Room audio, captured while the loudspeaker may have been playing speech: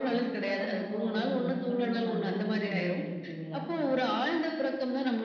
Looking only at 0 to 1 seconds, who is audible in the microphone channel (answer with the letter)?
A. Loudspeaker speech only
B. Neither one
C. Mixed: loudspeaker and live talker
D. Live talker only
C